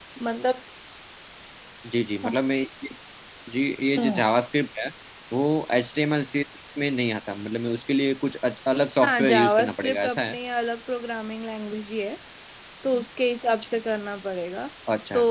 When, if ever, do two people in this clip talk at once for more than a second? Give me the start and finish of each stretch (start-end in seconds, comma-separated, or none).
9.0-10.3